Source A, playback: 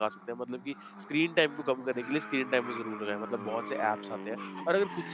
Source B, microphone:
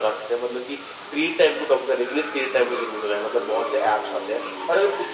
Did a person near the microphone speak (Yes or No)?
No